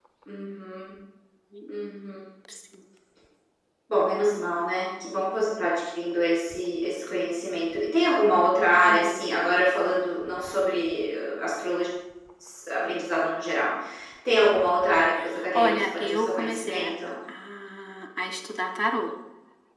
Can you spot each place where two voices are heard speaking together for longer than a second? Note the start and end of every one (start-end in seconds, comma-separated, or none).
15.5-16.9